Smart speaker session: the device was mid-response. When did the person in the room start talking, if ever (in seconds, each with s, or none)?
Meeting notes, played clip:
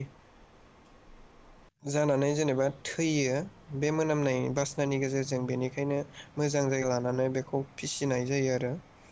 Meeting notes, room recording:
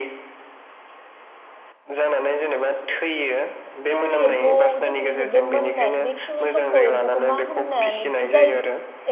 4.0 s